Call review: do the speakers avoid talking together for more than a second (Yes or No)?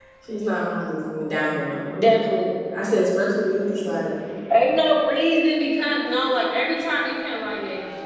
Yes